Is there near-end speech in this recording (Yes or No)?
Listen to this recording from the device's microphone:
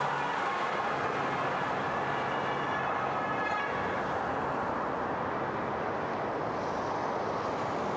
No